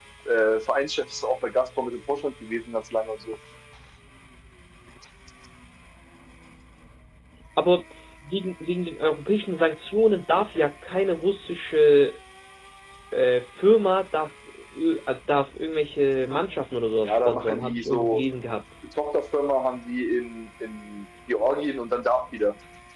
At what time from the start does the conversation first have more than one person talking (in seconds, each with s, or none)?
17.0 s